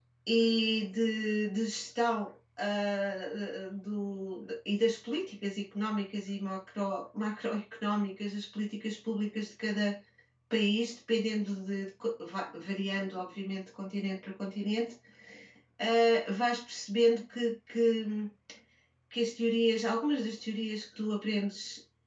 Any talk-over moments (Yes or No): No